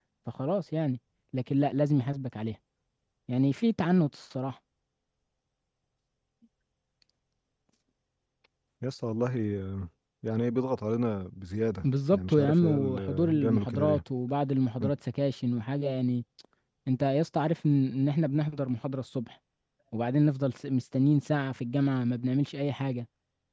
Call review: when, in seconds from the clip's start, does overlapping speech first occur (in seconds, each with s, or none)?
12.1 s